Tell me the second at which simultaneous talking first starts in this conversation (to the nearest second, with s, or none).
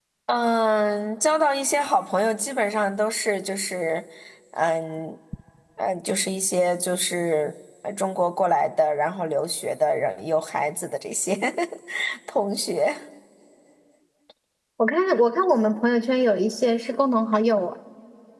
none